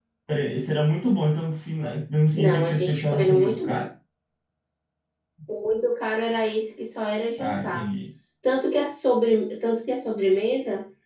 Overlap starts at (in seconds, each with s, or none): 2.4 s